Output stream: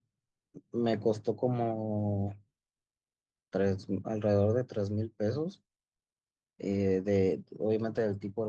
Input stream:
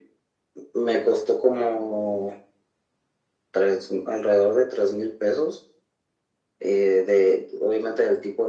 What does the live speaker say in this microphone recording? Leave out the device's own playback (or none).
none